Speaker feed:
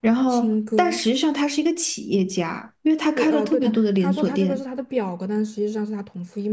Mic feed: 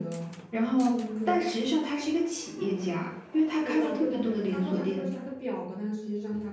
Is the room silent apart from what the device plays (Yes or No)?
Yes